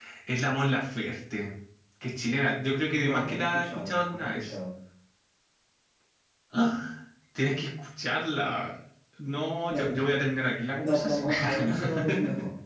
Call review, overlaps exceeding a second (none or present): present